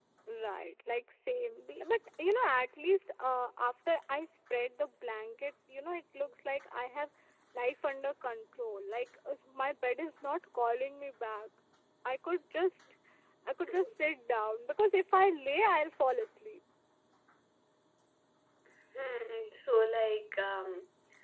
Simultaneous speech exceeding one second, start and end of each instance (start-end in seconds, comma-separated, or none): none